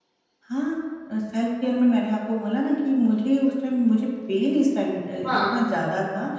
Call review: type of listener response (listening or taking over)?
listening